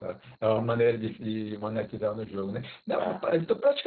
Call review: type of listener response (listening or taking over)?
listening